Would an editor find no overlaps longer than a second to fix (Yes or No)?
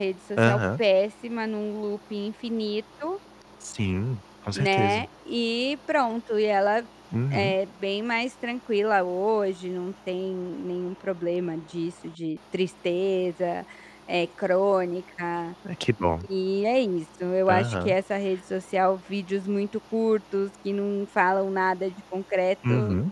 Yes